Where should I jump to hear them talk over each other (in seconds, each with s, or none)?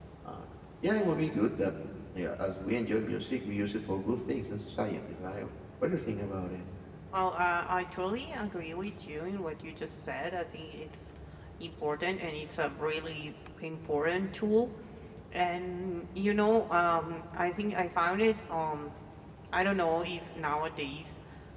none